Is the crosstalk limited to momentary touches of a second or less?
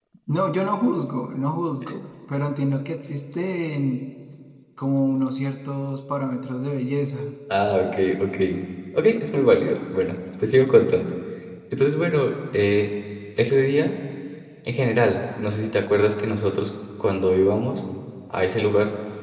Yes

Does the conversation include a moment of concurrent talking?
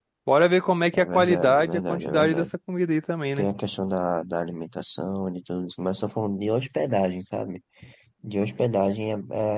Yes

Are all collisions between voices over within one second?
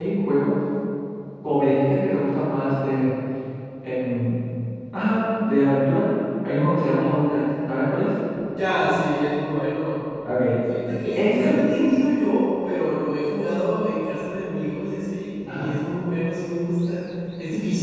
Yes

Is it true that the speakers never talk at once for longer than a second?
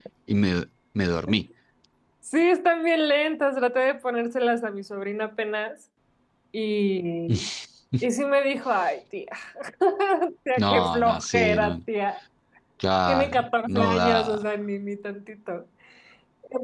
No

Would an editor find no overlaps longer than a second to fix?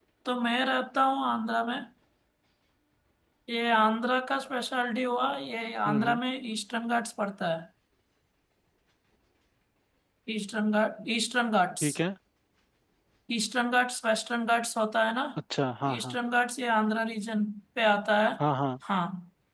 Yes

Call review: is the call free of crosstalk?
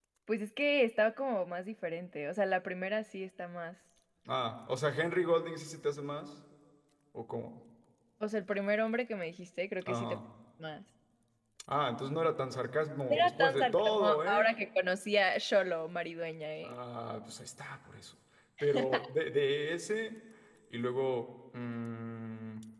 No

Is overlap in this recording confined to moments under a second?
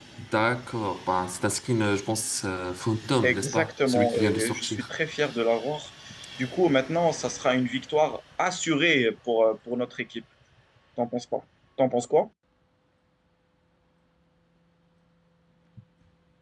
No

